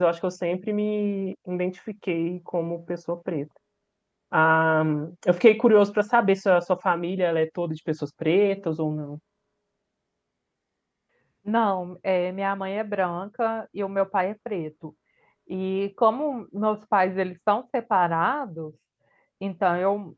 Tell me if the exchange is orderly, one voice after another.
Yes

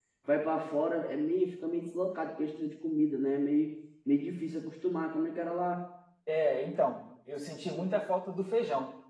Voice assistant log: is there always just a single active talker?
Yes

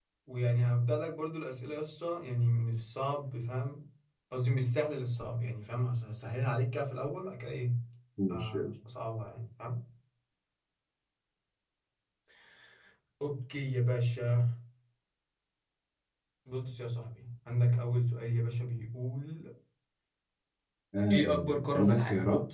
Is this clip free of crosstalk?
No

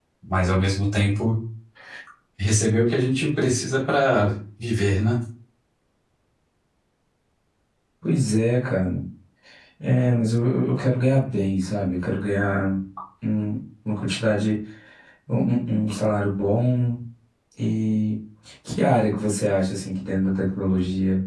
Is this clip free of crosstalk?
Yes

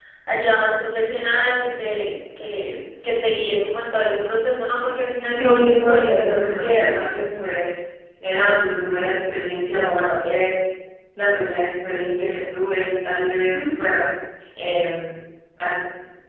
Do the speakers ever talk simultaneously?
Yes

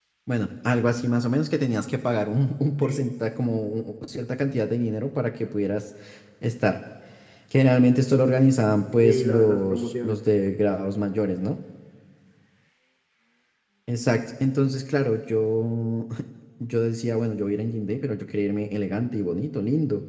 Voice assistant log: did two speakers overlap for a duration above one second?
Yes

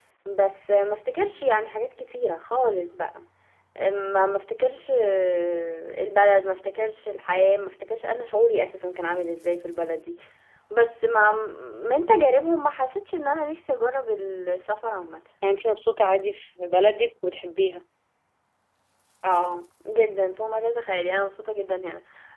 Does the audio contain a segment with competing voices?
No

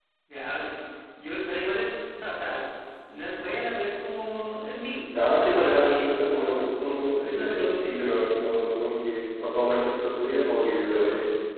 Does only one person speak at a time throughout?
No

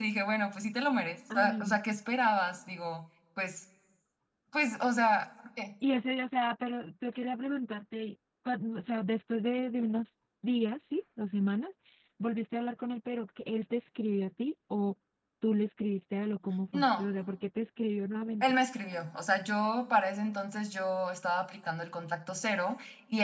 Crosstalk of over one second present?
No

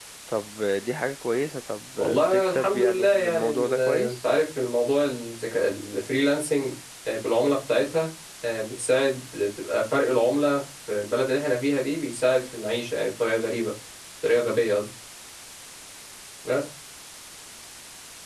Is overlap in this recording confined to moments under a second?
No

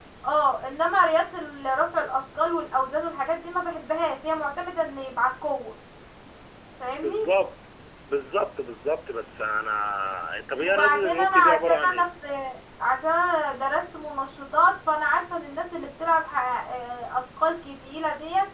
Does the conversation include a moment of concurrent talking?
Yes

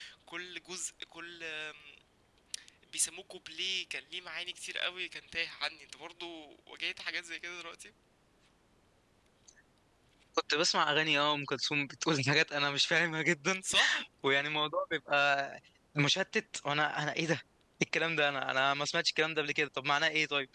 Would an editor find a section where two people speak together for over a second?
No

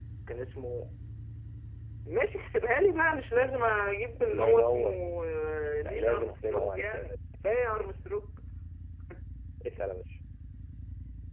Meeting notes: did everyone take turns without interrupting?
No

